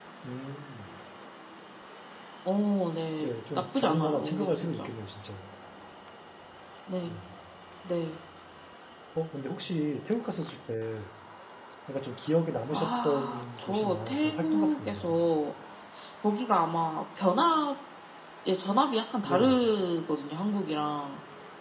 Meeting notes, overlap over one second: present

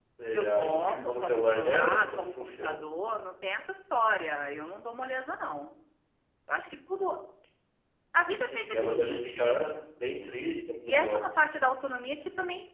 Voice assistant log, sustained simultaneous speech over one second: present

